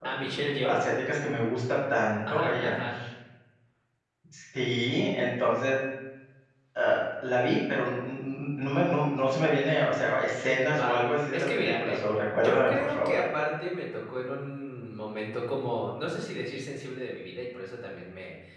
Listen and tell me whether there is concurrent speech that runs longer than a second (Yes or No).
Yes